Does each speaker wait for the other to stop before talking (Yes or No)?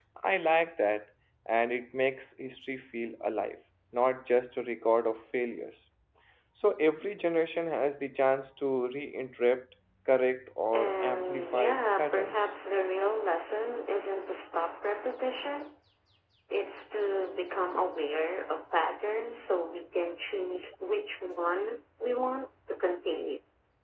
No